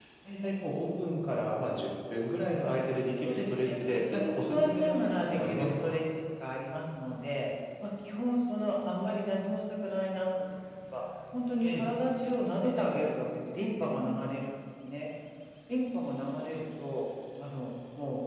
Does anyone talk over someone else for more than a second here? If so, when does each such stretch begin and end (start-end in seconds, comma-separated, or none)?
3.2-6.0